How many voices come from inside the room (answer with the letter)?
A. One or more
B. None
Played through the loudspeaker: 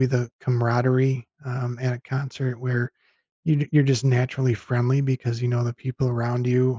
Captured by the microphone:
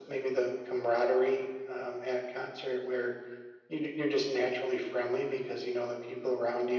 B